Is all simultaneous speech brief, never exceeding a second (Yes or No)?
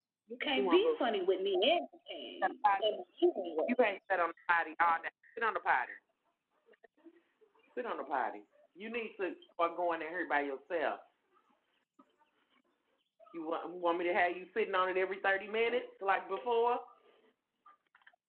Yes